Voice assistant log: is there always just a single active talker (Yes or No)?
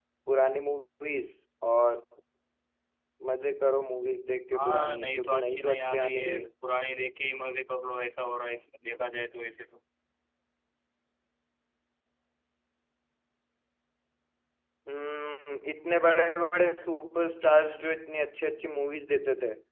No